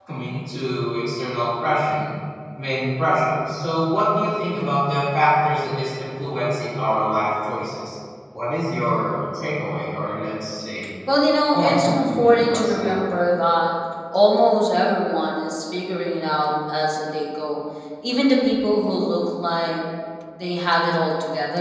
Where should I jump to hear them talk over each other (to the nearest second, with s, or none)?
12 s